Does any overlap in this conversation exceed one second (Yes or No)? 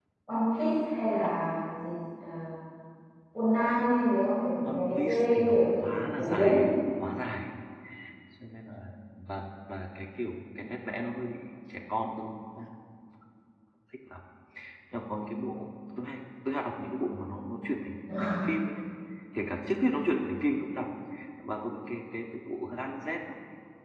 Yes